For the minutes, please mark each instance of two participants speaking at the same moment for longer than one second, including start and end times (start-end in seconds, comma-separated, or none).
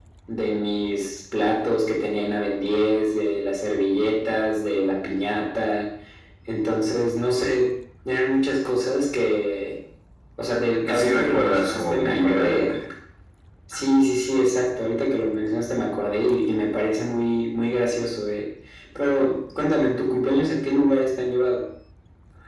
10.8-12.7